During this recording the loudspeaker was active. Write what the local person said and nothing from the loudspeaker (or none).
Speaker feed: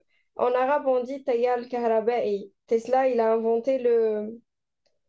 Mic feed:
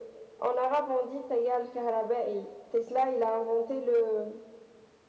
none